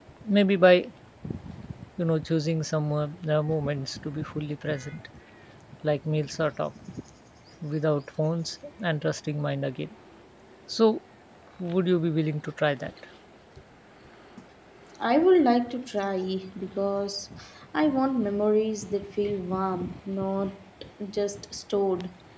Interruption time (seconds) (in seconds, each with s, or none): none